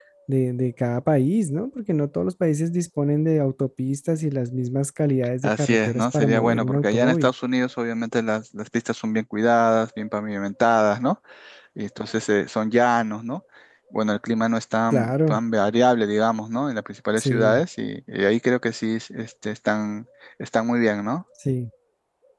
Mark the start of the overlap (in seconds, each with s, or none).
5.4 s